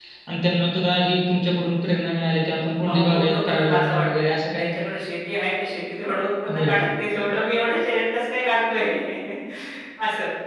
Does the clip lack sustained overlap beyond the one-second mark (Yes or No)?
No